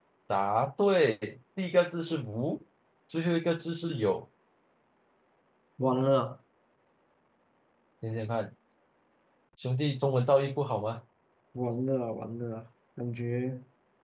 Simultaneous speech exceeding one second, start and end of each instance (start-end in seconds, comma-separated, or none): none